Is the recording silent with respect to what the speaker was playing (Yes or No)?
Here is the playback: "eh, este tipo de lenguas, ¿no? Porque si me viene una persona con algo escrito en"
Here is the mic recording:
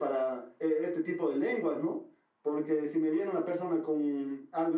No